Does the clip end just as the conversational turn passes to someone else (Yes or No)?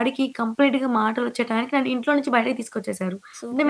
Yes